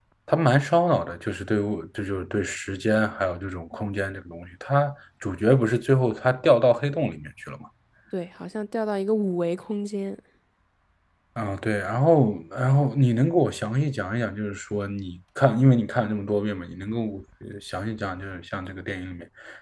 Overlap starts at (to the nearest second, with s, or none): none